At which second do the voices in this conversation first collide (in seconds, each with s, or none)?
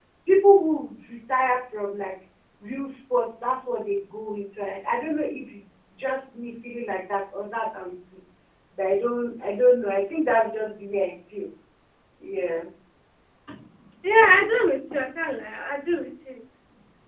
none